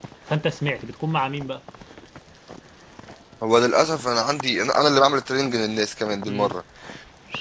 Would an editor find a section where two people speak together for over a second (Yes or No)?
No